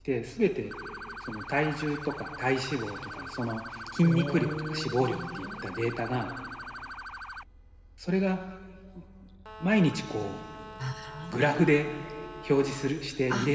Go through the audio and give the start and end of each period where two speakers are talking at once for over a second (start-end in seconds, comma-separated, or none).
4.0-6.3